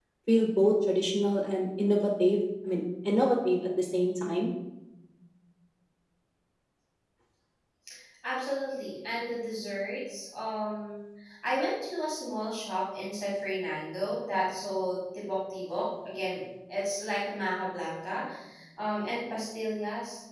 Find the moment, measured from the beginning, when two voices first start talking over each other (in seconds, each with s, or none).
none